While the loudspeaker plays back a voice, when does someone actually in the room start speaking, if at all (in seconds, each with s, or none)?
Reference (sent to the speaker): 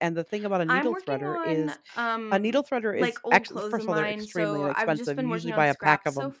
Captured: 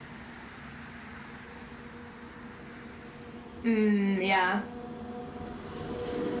3.6 s